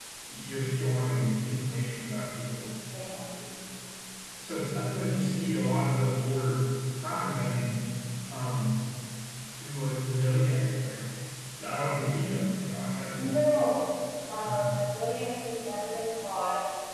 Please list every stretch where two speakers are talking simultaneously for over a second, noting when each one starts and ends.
none

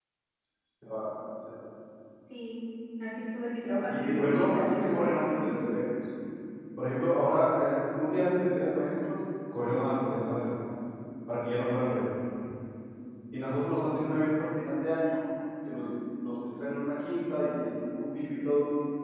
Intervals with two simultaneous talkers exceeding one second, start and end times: 3.9-5.5

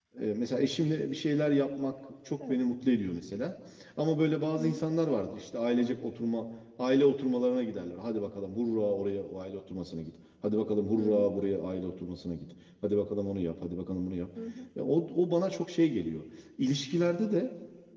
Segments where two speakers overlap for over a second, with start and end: none

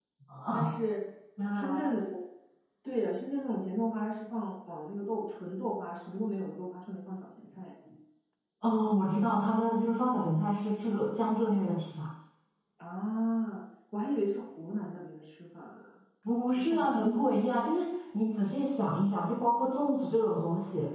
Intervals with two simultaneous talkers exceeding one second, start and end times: none

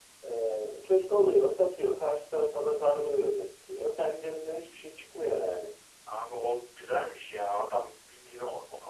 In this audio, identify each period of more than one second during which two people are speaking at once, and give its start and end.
none

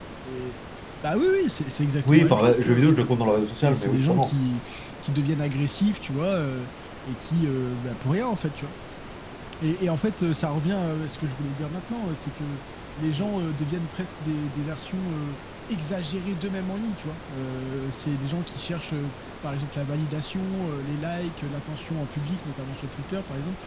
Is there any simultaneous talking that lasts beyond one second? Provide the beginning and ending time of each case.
2.0-4.3

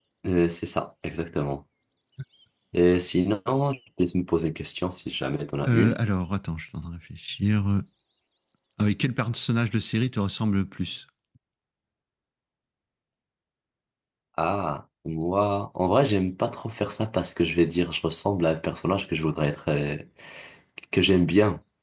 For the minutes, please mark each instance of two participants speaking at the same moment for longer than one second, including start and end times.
none

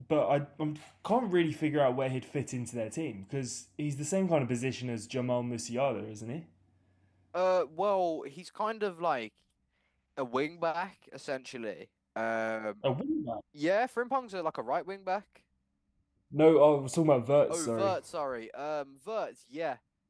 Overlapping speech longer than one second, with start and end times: none

